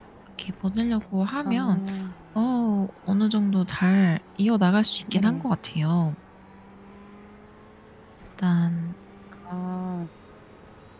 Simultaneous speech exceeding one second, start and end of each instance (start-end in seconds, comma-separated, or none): none